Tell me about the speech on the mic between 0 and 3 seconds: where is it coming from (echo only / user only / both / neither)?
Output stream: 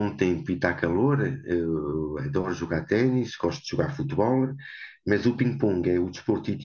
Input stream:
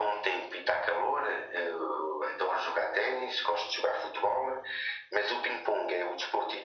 echo only